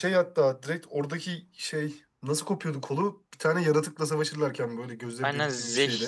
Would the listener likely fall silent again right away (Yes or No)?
No